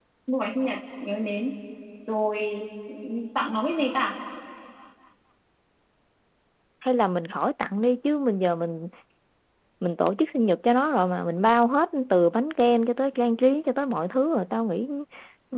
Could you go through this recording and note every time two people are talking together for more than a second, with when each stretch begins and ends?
none

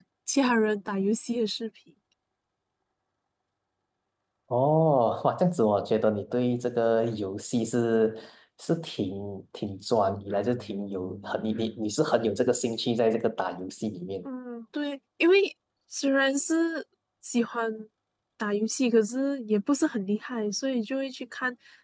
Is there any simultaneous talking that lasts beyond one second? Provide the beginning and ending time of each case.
none

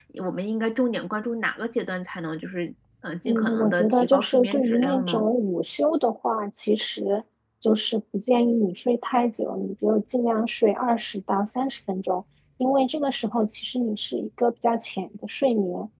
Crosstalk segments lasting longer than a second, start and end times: 3.3-5.3

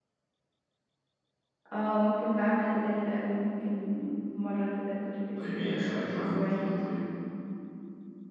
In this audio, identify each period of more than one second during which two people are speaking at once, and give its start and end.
5.4-6.7

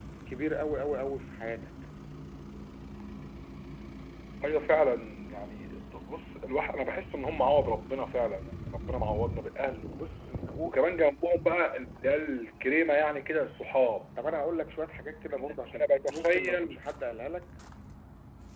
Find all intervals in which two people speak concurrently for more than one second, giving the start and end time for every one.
15.3-16.8

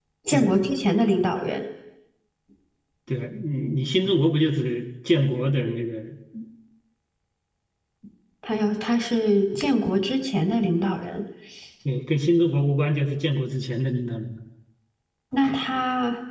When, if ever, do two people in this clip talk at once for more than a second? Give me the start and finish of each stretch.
none

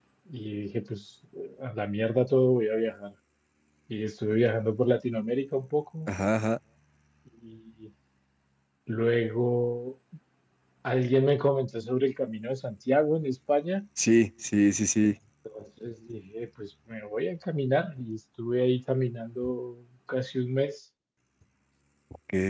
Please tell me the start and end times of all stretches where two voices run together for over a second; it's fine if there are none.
none

